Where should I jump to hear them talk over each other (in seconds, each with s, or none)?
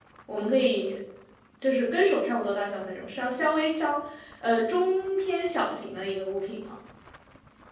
none